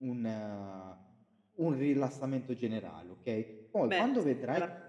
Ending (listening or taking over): taking over